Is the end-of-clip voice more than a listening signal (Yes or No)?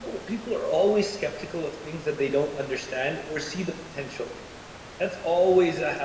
No